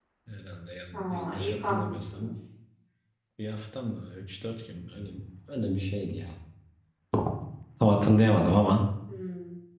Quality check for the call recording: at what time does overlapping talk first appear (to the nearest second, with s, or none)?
1 s